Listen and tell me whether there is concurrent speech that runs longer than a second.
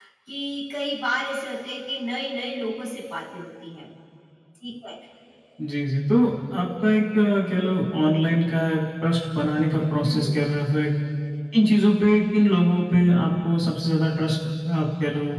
No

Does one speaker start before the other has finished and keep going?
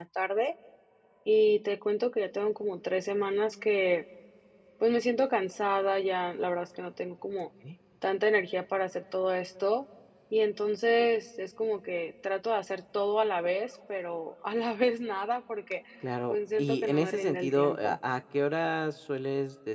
Yes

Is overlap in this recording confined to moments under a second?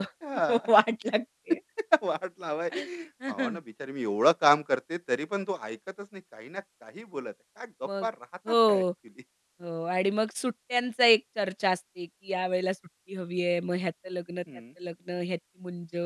Yes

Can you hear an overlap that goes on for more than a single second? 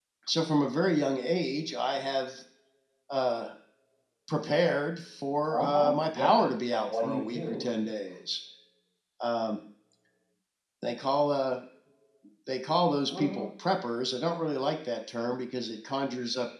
Yes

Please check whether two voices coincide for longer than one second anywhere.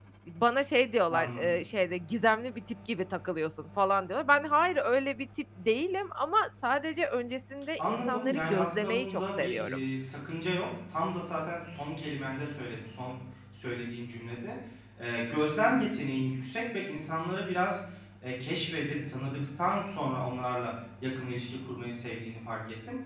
Yes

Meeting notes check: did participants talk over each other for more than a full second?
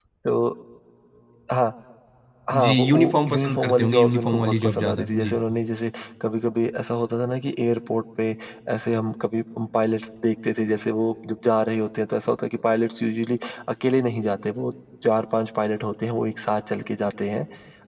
Yes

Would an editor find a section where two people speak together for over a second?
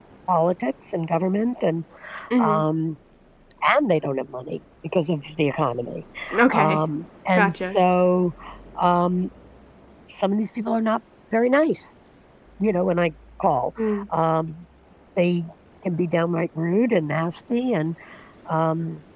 No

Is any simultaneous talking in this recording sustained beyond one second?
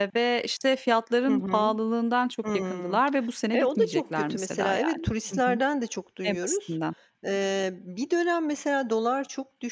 Yes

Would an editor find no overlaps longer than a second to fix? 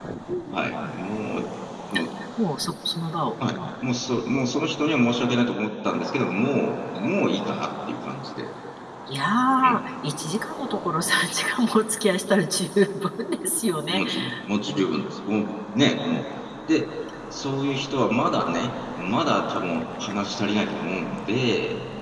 Yes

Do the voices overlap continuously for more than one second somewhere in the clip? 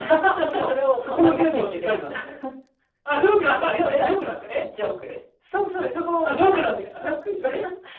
Yes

